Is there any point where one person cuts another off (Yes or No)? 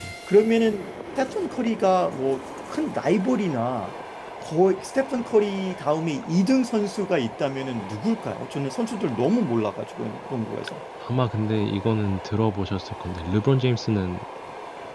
No